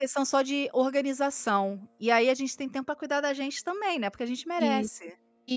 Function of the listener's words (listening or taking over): taking over